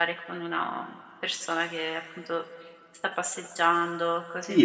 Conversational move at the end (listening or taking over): taking over